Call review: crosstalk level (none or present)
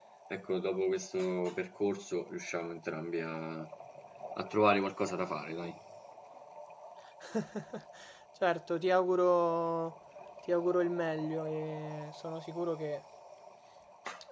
none